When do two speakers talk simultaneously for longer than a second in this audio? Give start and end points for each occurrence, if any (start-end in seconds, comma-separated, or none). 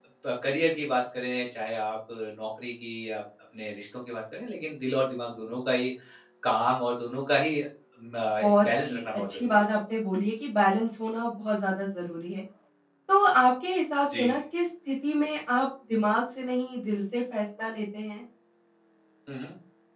8.4-9.6